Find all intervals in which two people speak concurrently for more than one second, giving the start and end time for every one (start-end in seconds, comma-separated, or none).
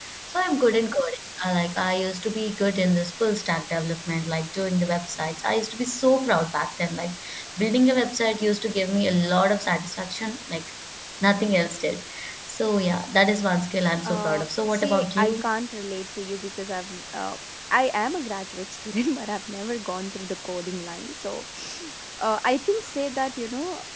14.0-15.5